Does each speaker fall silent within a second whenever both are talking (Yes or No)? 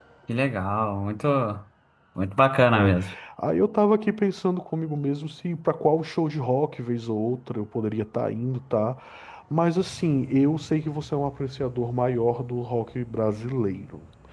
Yes